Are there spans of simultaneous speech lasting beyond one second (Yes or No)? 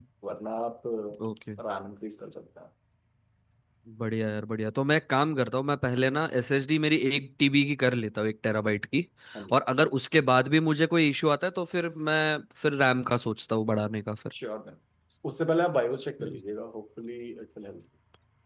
No